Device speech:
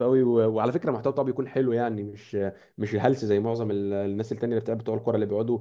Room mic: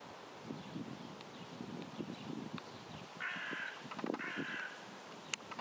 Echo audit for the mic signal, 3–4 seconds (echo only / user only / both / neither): neither